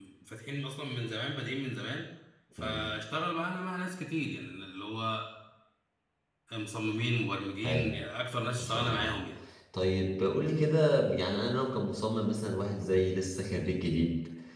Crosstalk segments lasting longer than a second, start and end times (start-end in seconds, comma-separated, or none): none